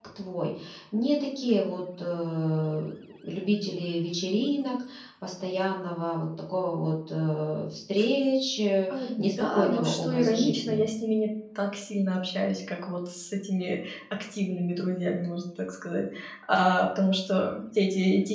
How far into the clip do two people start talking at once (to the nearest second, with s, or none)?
9 s